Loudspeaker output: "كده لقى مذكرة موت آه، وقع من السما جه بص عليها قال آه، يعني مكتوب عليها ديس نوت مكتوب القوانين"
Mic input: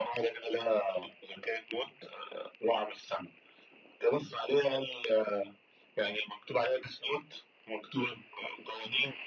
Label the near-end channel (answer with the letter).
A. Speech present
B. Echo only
B